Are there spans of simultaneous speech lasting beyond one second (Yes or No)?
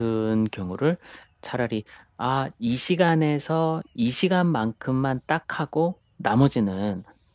No